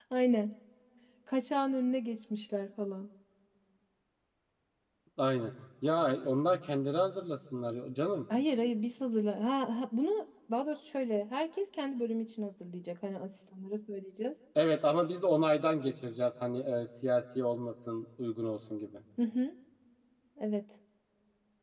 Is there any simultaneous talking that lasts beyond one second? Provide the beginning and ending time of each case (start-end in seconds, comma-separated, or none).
none